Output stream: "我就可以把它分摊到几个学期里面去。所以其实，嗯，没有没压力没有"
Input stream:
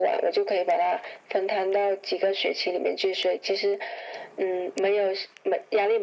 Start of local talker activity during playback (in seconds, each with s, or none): none